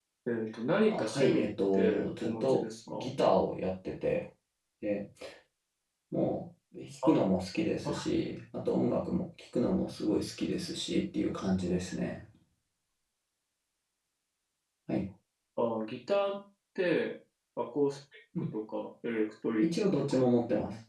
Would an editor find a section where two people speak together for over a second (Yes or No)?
Yes